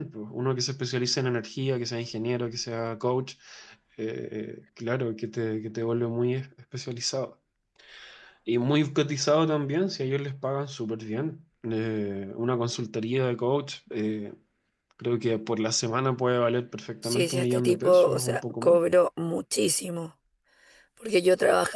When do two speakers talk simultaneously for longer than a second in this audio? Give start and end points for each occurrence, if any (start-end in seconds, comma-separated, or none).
17.0-18.8